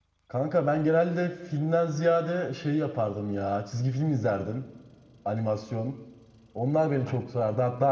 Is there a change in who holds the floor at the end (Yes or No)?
No